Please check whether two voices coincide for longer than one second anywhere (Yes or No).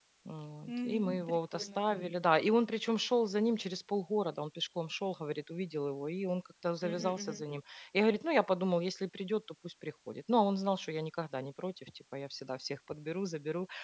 Yes